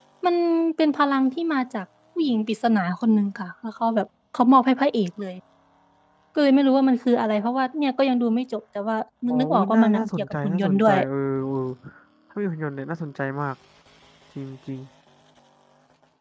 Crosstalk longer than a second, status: present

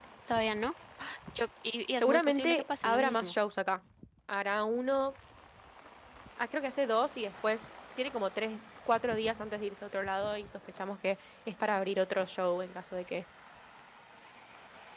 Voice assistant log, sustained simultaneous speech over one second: present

